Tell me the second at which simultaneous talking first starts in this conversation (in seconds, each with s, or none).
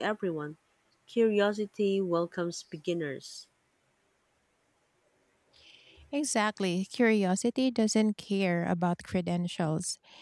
none